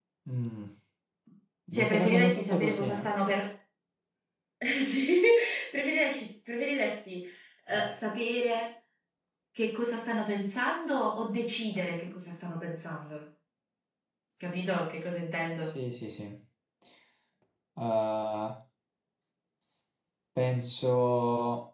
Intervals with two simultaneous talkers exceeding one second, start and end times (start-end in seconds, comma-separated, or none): 1.7-3.1